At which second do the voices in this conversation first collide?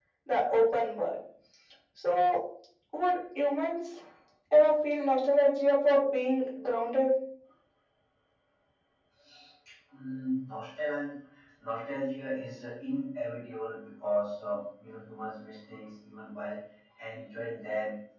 none

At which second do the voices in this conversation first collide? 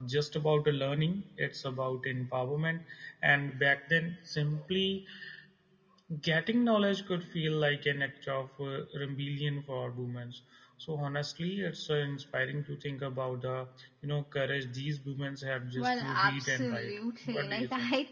15.8 s

